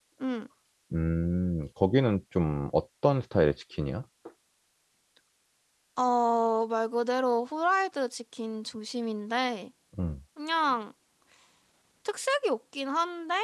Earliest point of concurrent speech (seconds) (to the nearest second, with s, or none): none